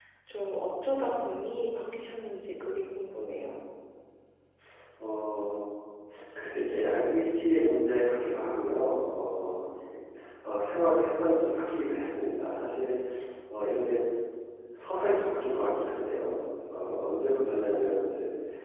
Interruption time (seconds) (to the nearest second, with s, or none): none